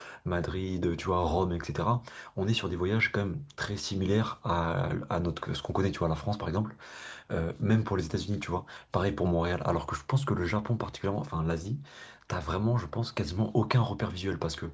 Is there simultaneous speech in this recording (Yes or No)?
No